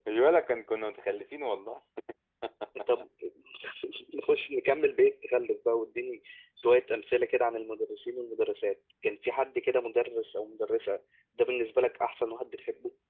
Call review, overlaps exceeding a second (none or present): none